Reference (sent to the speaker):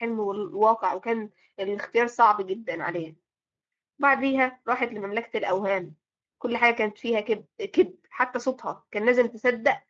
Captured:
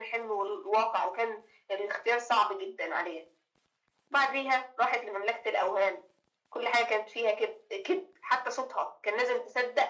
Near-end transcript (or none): none